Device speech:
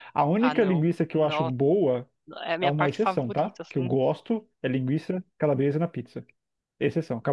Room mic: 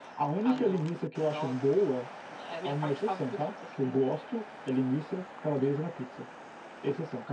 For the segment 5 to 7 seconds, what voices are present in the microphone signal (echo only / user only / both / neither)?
echo only